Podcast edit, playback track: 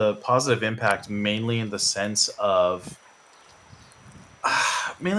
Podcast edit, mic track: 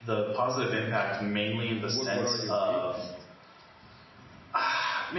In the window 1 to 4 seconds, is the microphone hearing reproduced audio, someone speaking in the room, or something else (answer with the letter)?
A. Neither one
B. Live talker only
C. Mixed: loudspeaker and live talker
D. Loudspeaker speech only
C